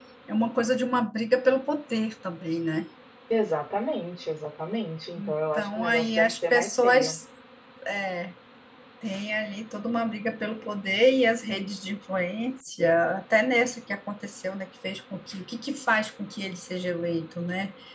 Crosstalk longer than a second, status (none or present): present